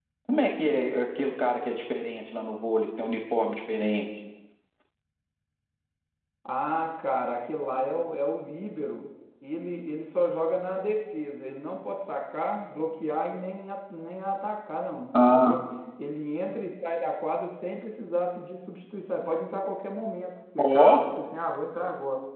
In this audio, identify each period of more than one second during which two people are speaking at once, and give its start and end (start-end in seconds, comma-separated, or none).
none